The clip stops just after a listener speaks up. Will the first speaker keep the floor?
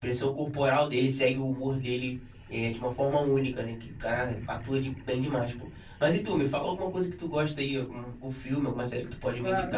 No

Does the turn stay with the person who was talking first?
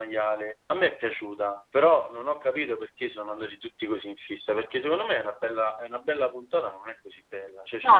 Yes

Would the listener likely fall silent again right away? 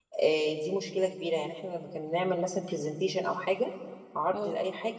Yes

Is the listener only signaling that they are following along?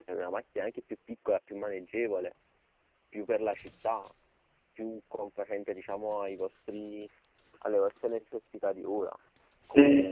Yes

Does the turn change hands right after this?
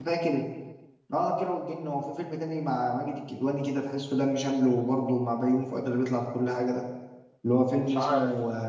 No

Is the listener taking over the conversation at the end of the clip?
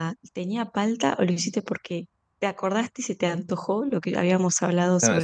Yes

